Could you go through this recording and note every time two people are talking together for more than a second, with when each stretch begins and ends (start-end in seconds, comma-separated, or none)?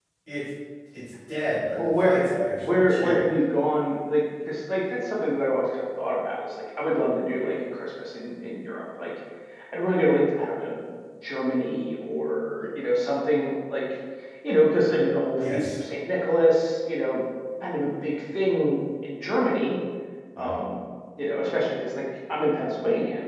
1.9-3.2